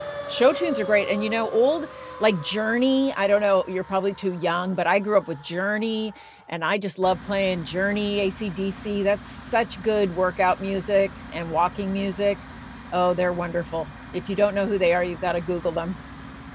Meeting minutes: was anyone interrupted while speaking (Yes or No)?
No